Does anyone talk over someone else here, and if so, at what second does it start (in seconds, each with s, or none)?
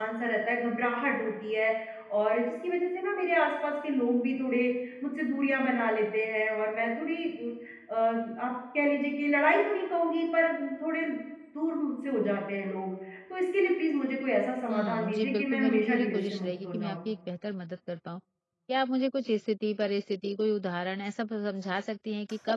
14.7 s